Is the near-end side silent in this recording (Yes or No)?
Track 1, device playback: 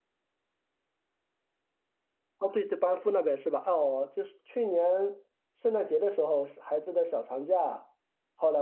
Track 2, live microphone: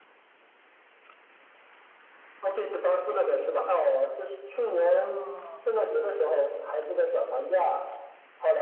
No